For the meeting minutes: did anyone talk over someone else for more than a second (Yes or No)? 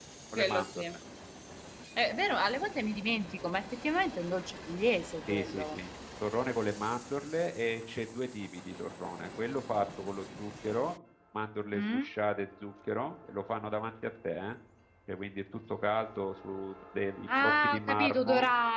Yes